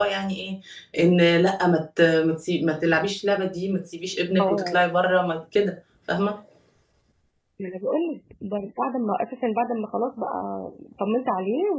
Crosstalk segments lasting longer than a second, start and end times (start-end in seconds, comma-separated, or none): none